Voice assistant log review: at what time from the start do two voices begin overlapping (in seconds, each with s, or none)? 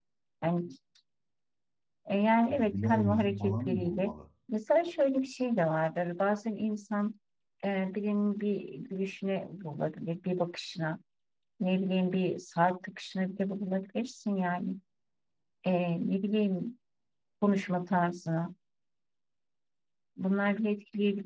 2.5 s